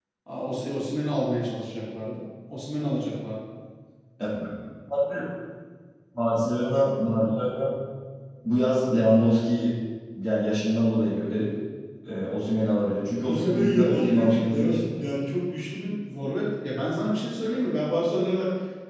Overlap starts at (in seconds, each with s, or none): 13.2 s